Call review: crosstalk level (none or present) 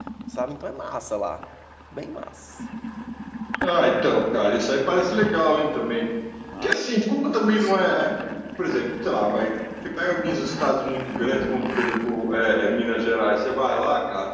none